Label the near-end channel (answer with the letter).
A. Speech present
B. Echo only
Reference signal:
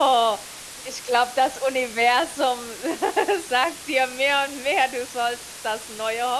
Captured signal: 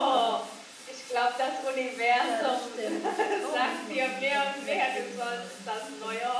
A